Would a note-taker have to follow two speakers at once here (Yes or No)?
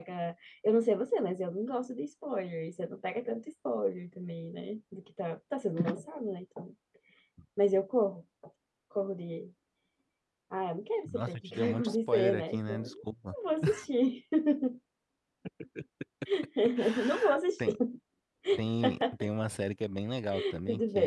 Yes